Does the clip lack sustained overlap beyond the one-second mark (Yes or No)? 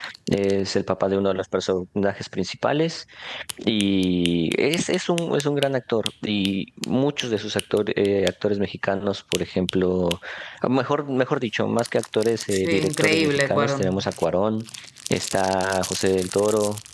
No